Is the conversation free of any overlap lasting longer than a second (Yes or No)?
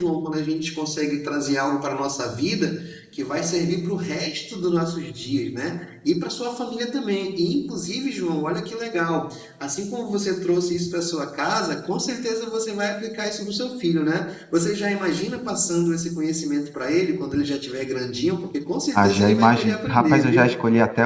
No